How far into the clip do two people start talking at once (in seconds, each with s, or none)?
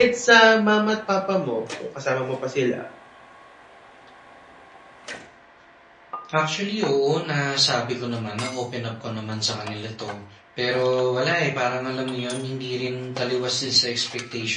none